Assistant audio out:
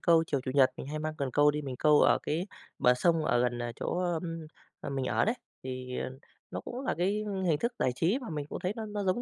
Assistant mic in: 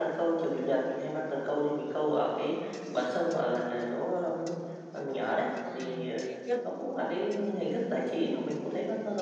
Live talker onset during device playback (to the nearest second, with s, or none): 6 s